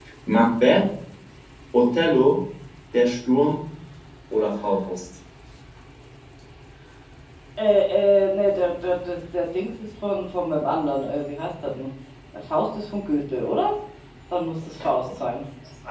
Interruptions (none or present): none